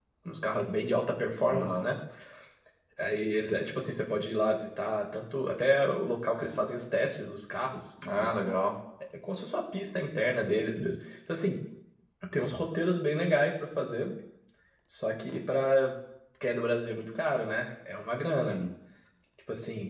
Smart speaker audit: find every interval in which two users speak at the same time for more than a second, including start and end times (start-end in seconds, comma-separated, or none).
none